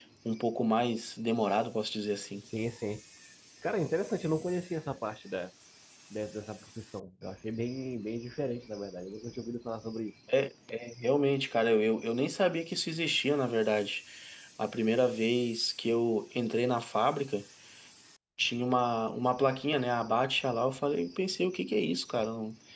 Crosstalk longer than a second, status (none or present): none